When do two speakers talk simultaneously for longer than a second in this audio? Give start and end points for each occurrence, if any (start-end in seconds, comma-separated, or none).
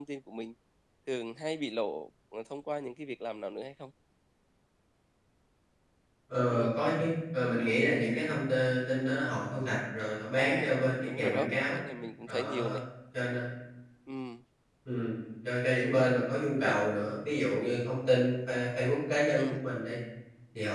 10.3-11.8